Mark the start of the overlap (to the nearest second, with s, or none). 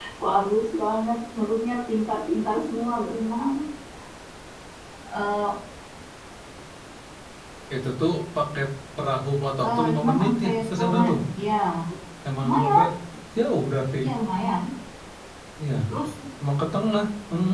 10 s